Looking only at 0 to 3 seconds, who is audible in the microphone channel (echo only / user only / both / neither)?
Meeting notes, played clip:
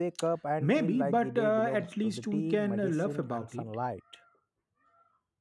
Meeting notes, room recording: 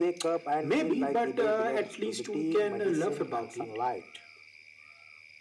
echo only